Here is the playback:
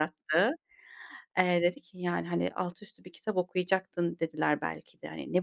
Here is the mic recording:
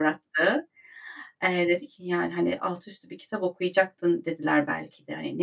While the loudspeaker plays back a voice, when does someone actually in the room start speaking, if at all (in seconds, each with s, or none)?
none